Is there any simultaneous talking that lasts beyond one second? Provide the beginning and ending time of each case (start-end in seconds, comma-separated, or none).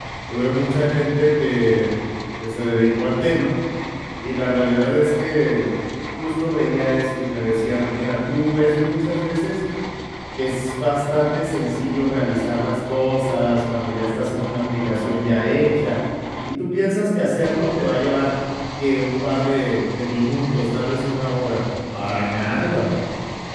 none